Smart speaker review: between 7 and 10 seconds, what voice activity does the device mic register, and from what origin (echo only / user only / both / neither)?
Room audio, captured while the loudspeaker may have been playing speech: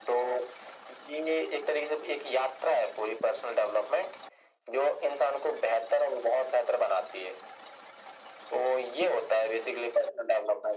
echo only